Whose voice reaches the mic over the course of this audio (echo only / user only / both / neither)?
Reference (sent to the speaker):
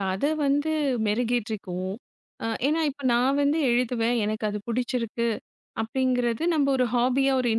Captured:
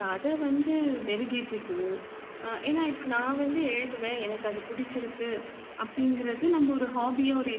echo only